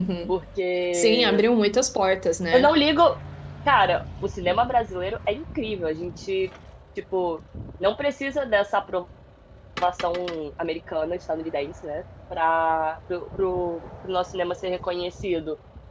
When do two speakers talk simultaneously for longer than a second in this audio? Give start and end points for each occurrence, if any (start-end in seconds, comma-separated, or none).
none